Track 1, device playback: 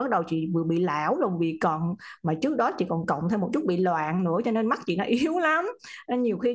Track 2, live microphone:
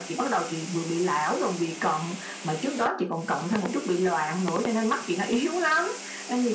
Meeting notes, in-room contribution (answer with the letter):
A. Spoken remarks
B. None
B